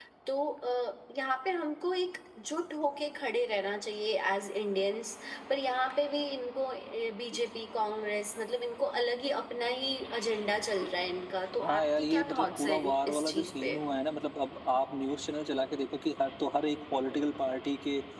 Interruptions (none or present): present